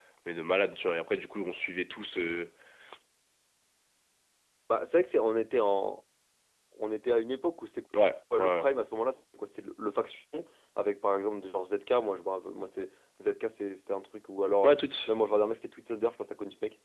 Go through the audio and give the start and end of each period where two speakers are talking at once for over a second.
none

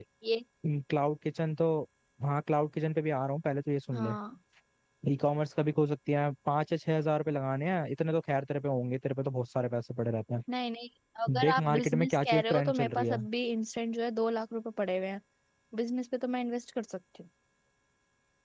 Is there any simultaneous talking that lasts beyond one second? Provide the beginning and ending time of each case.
11.3-13.2

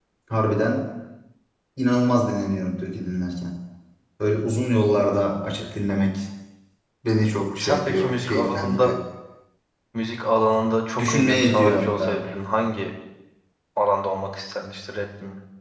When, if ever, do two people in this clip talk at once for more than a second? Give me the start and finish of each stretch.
7.6-8.9, 11.0-12.2

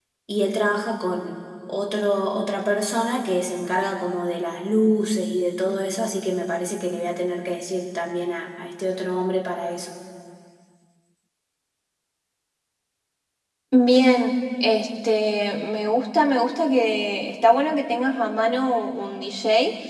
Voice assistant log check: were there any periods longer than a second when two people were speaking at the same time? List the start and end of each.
none

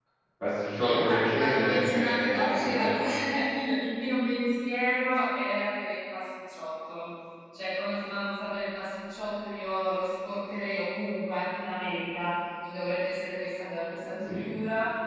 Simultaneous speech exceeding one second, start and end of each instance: 0.8-3.0

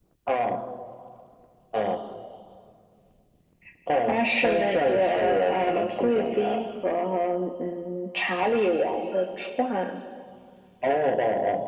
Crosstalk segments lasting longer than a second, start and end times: 4.1-6.6

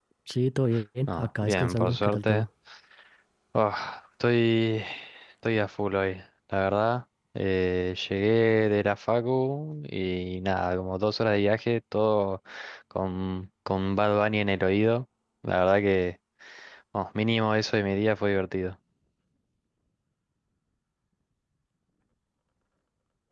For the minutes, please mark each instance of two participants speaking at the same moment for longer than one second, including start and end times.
1.1-2.5

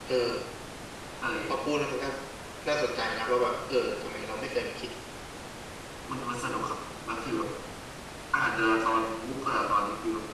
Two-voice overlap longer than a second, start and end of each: none

